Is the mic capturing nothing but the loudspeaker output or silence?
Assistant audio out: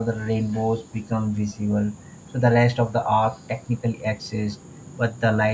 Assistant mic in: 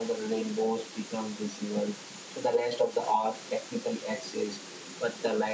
Yes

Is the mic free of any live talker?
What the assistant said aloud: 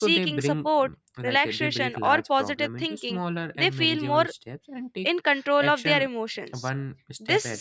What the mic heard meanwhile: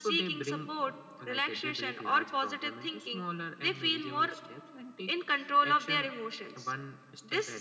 Yes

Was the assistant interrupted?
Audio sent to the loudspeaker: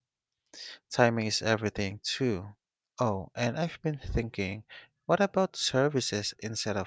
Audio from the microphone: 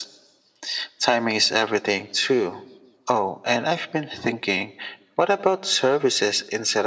No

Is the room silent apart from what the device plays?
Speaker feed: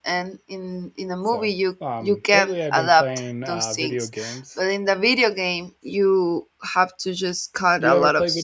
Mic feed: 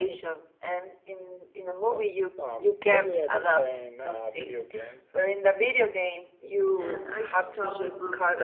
No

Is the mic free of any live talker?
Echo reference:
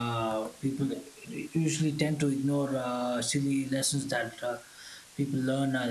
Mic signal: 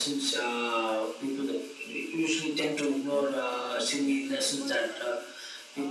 No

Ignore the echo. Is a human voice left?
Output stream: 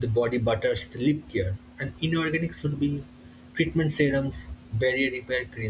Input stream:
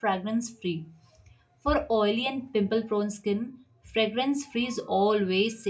Yes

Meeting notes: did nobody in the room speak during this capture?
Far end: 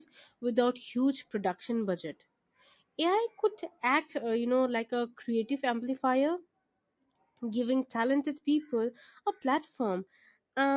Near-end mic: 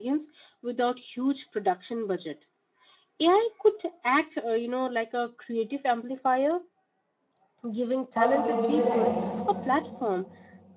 No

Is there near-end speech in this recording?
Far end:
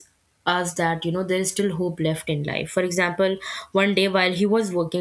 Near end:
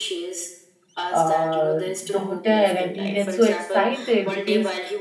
Yes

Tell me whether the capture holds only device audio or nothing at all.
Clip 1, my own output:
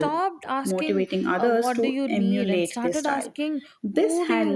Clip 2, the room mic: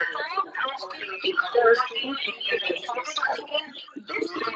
Yes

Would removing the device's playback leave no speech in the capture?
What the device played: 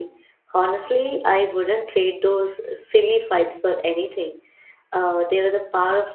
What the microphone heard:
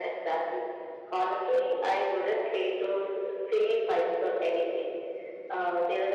Yes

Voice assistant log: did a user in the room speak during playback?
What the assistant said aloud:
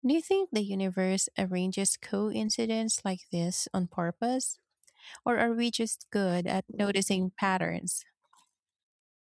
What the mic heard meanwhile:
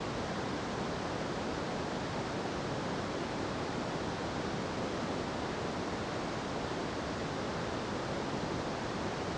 No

